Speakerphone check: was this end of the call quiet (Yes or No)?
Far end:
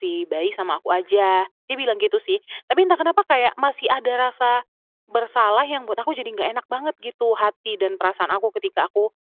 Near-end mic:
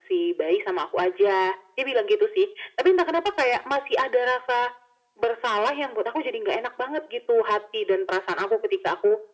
Yes